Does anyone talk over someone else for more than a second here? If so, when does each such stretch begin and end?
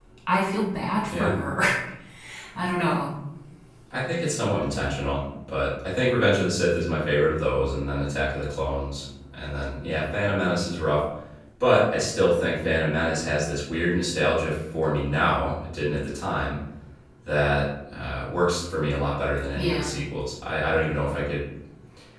none

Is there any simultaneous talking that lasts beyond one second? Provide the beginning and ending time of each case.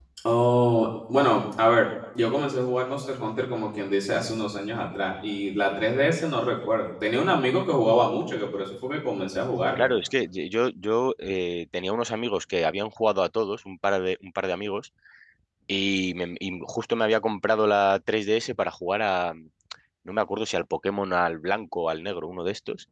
none

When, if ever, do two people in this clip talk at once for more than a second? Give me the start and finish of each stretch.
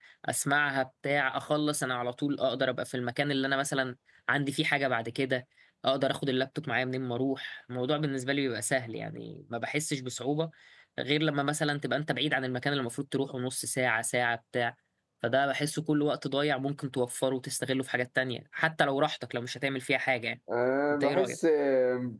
none

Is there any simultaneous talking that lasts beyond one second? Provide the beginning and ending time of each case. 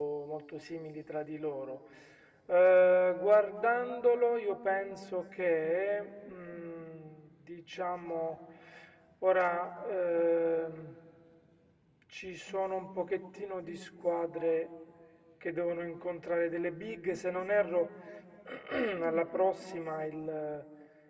none

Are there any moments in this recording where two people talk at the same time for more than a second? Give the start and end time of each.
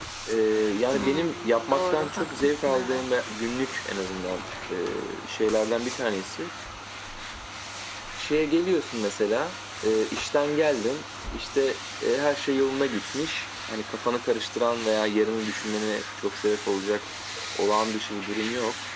0.9-3.0

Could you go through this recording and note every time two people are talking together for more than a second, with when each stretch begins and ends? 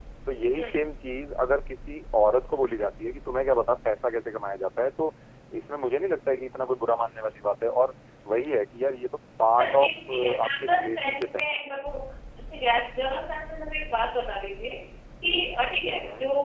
9.6-11.4

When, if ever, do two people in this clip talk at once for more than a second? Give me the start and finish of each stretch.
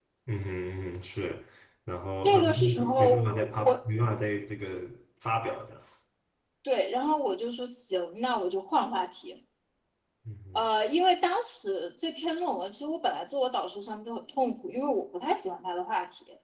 2.2-3.8

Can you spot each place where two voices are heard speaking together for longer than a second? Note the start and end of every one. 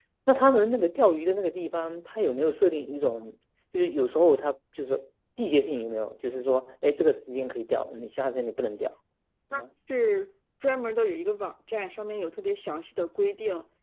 none

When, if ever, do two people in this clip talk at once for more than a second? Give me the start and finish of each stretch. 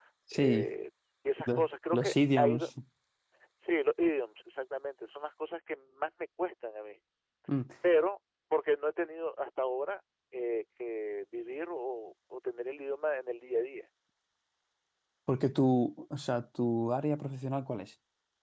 1.4-2.7

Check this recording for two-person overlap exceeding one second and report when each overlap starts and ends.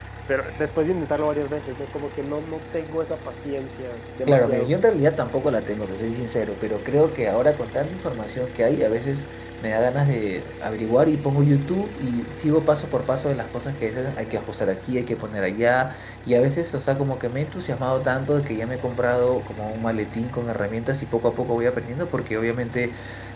none

